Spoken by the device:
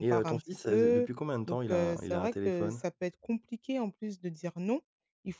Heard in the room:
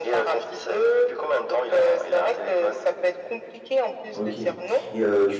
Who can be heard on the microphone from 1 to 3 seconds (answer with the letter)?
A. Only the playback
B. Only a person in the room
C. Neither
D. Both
A